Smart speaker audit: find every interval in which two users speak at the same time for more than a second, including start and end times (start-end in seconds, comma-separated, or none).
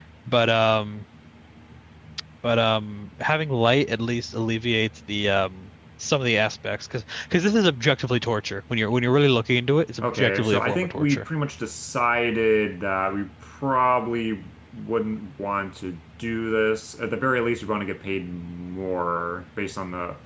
10.0-11.2